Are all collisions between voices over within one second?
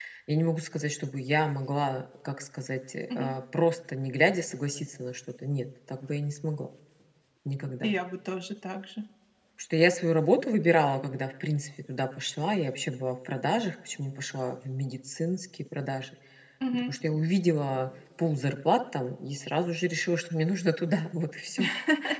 Yes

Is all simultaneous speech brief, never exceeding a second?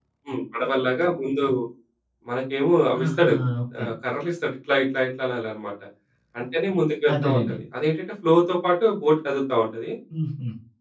Yes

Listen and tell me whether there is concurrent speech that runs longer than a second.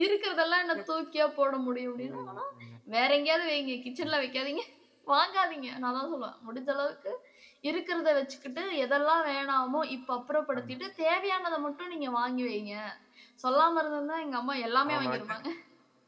No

